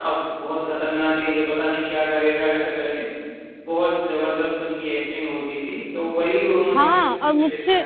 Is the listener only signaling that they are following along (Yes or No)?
No